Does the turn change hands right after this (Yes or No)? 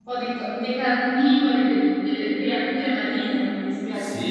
Yes